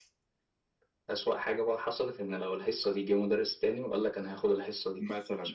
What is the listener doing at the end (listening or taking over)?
taking over